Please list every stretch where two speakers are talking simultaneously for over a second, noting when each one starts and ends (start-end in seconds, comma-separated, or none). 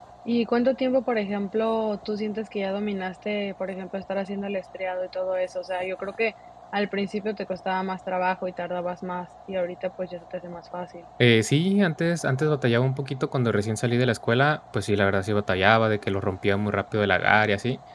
none